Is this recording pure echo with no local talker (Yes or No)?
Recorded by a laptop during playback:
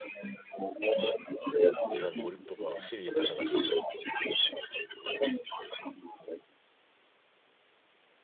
No